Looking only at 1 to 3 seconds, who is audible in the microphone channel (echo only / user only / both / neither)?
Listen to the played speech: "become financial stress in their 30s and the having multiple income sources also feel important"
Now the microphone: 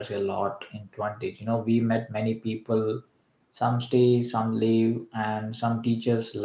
user only